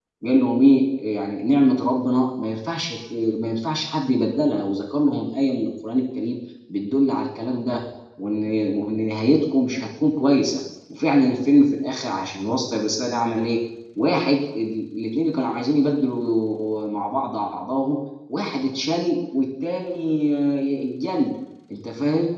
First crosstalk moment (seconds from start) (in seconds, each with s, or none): none